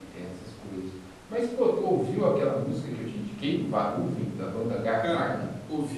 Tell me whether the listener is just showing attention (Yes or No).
No